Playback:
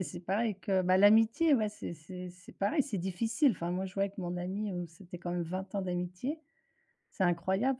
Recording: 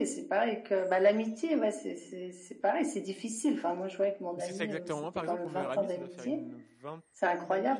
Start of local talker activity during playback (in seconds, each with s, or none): 4.3 s